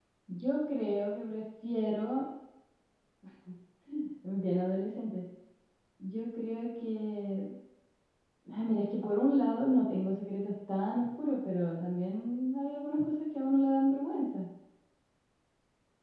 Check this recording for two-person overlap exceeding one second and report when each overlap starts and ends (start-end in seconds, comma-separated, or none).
none